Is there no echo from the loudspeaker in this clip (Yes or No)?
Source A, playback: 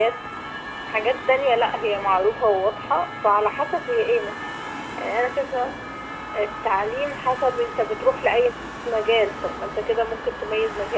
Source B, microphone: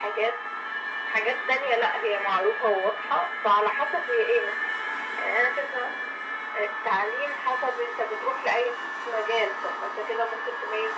No